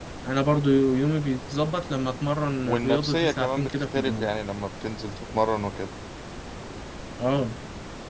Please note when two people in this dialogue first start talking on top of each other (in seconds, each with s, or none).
2.6 s